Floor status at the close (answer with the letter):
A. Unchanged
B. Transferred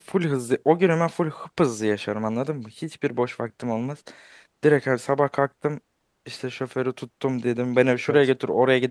A